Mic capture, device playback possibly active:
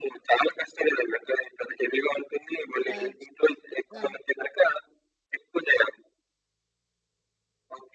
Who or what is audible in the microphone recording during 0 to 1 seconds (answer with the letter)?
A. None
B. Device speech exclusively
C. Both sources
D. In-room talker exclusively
B